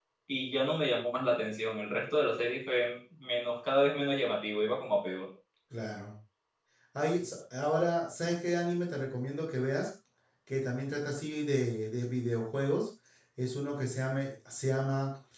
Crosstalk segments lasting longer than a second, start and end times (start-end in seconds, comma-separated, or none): none